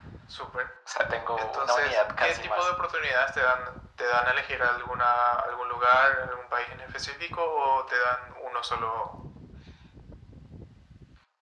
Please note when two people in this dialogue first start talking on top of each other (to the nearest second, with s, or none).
1 s